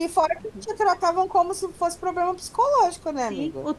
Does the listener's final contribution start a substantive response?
Yes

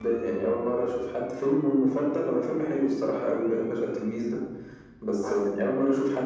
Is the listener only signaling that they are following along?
Yes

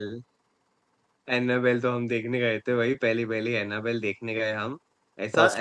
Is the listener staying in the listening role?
Yes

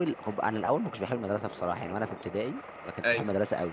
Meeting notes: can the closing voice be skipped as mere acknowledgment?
Yes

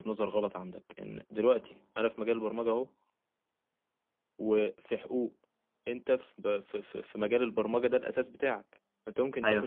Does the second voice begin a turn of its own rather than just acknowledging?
No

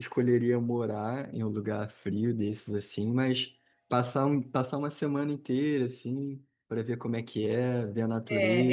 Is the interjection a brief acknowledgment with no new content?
No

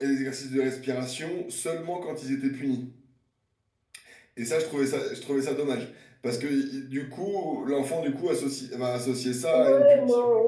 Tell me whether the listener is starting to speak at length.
Yes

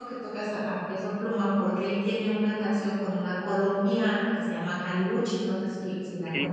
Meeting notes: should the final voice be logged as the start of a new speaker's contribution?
Yes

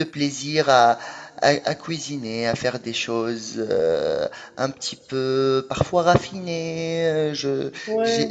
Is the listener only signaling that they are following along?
No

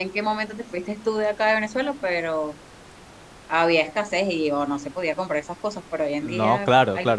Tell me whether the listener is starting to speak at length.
Yes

